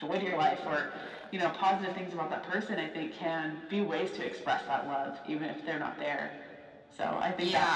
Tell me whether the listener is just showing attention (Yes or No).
No